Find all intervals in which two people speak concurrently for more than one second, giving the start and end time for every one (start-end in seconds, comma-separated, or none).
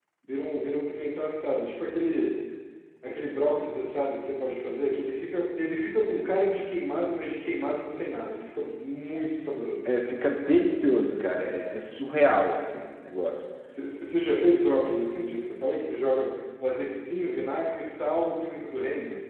none